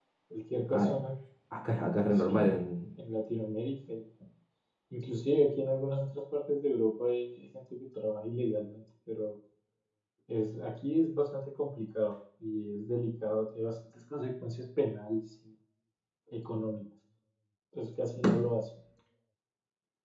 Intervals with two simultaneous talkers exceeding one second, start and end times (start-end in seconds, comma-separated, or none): none